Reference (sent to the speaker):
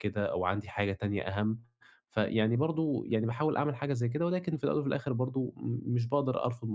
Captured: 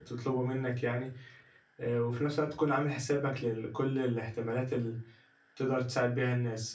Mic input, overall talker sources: user only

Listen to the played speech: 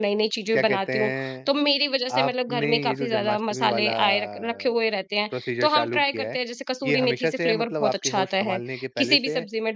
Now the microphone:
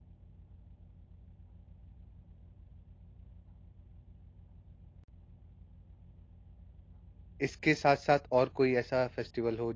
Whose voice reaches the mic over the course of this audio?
user only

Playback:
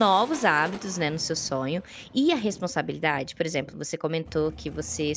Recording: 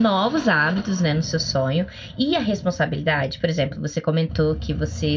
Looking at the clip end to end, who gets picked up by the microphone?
echo only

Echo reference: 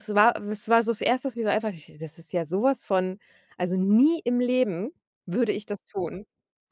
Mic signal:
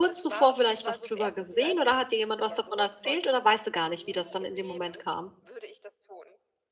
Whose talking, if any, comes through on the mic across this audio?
both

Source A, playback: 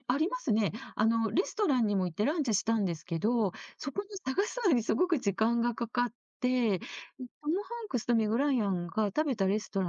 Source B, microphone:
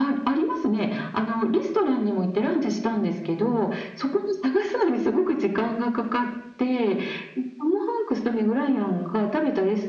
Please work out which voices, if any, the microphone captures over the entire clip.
echo only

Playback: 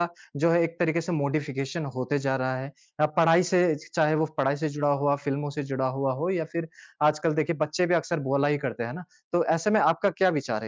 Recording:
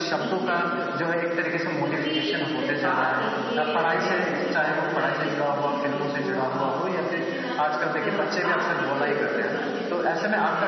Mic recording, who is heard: both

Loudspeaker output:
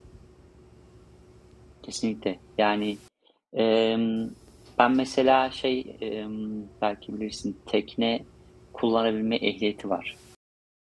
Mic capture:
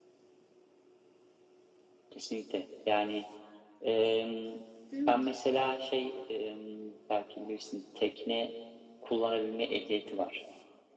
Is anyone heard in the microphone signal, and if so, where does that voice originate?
both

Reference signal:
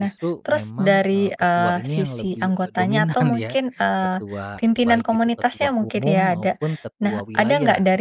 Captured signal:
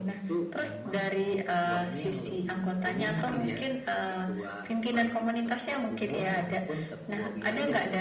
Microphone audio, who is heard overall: echo only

